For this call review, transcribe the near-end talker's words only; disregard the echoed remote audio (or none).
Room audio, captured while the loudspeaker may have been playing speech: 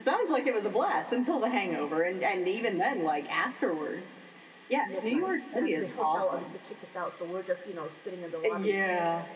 midnight, and the hotel obviously kicked us out, so we're just, you know, sitting in the lobby,